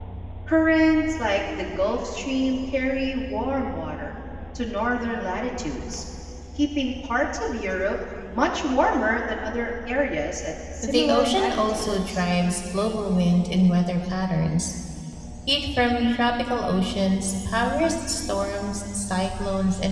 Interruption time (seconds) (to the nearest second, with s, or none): 11 s